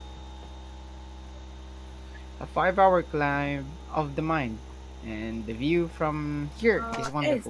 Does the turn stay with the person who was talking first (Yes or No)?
No